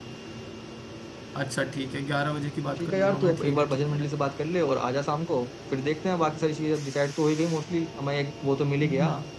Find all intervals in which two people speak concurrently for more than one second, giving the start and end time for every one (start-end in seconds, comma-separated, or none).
2.7-4.0